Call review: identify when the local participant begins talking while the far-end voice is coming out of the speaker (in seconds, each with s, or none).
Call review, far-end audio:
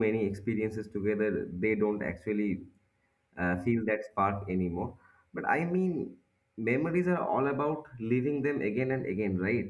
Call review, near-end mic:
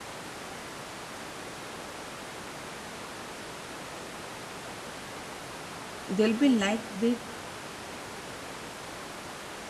6.2 s